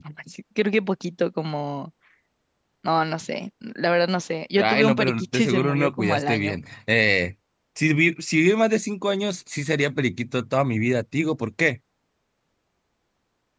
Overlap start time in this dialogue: 5 s

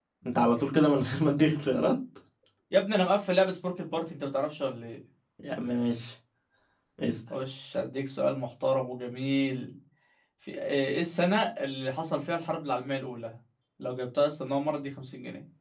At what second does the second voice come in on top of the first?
none

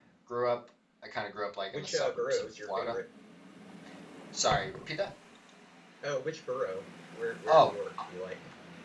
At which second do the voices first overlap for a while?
2 s

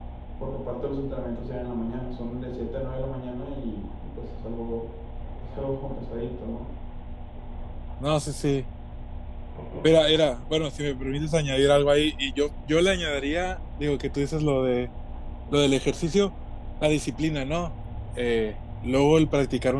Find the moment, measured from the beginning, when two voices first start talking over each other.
none

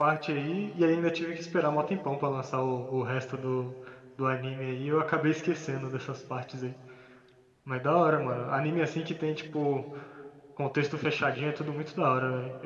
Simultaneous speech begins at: none

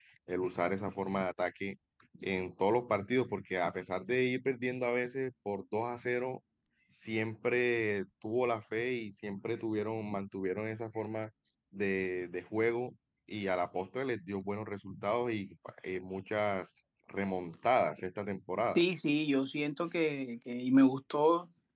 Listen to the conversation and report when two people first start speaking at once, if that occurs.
none

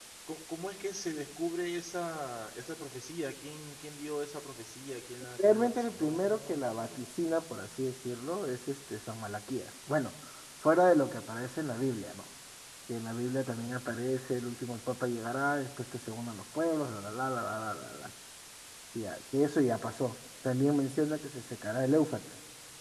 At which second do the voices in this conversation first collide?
5 s

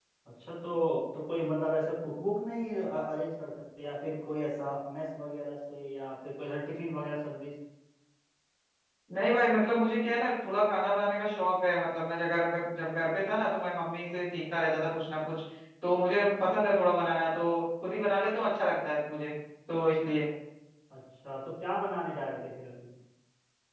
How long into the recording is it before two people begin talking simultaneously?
none

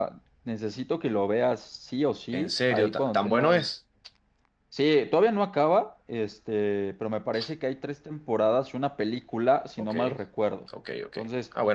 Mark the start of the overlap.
2 s

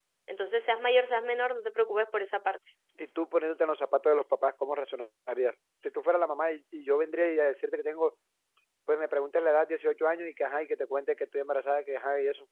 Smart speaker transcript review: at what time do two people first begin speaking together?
none

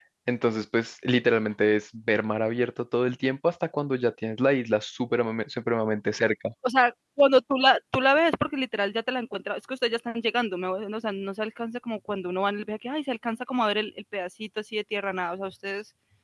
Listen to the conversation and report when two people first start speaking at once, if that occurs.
none

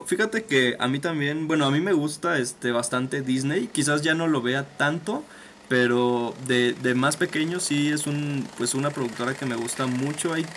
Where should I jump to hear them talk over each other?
none

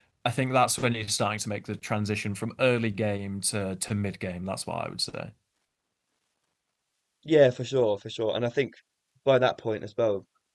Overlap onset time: none

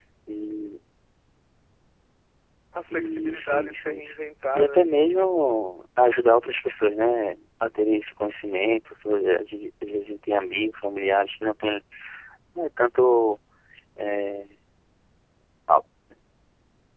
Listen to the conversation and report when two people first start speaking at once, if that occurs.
3 s

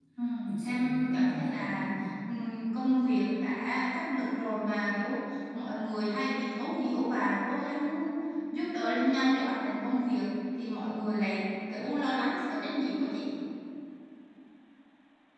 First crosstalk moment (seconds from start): 1 s

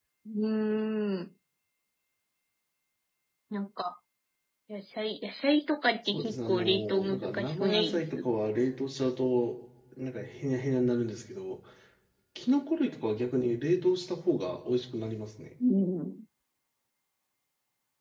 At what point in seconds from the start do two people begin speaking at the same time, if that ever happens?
6 s

